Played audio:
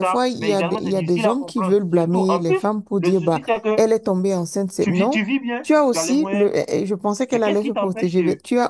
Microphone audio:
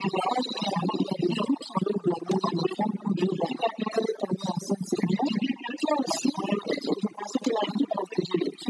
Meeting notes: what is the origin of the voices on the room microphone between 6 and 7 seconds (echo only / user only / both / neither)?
echo only